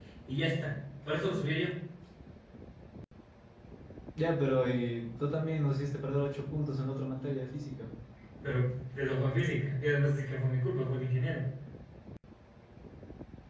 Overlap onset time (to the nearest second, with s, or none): none